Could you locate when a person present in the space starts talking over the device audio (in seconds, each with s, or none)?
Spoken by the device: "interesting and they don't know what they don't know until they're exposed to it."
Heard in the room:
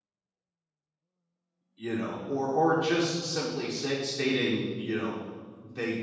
1.8 s